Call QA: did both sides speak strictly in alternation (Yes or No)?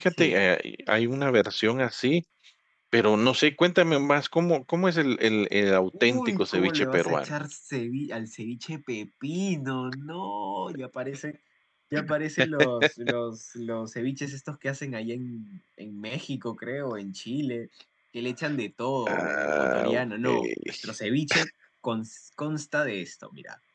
No